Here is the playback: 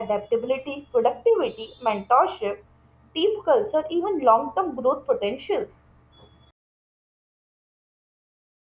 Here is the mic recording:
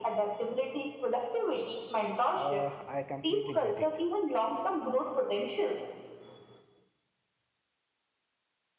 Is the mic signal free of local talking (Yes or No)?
No